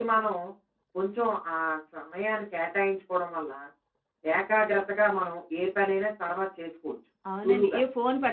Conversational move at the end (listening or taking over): taking over